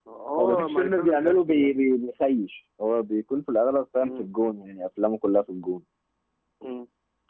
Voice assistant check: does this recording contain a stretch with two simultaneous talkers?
Yes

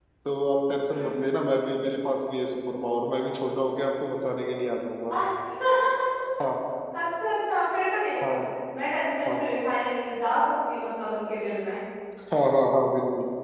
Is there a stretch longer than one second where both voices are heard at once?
No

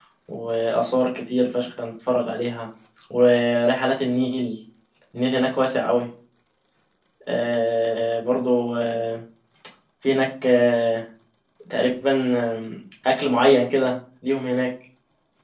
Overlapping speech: No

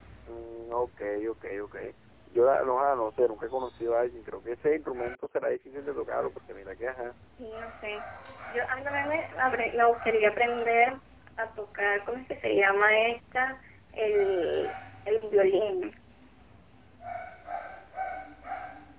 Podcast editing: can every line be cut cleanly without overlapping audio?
Yes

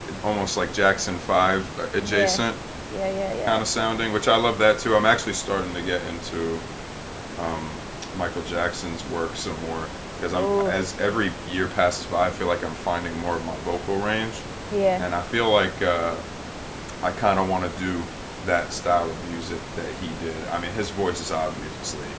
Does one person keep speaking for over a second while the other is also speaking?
No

